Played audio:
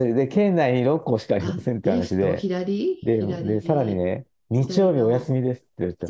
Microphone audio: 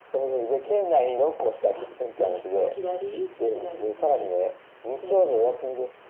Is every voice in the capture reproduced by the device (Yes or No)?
Yes